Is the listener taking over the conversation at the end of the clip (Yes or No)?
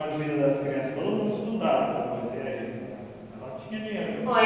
Yes